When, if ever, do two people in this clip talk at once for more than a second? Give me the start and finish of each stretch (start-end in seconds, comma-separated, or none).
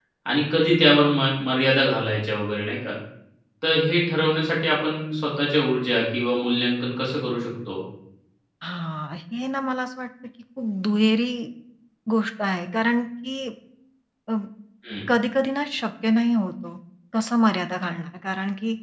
none